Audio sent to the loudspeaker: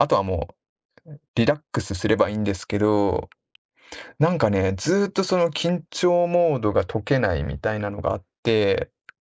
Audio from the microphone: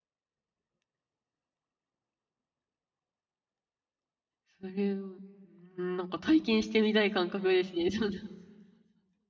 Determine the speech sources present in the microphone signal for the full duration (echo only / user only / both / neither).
user only